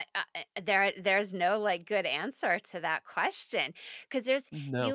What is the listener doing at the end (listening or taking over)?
listening